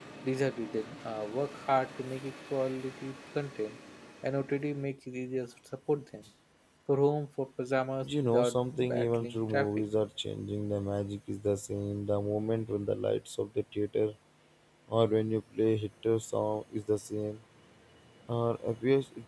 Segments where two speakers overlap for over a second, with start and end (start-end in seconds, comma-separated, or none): 8.0-9.7